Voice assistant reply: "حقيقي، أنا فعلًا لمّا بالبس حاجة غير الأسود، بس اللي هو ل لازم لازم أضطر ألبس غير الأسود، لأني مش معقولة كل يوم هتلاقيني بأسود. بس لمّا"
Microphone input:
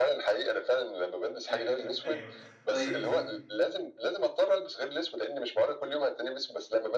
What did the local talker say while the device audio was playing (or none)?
فهمتك أيوه. طيب.